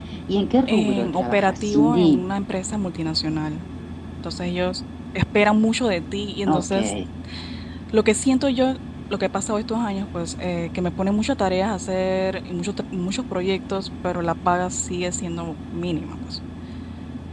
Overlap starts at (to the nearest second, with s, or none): 1 s